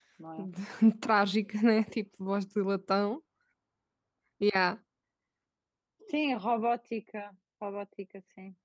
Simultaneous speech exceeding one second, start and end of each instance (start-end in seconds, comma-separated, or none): none